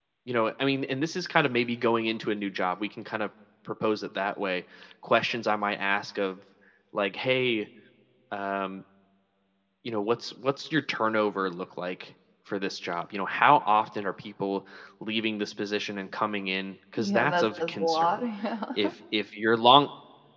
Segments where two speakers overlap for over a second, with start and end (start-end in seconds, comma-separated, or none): 17.0-18.2